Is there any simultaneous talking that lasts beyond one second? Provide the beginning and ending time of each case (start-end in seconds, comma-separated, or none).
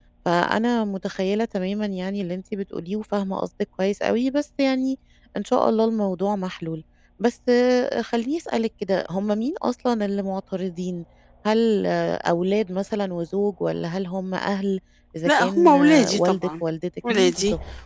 15.3-16.5